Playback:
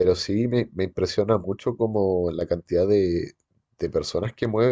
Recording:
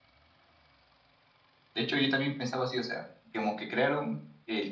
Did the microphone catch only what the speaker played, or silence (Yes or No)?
No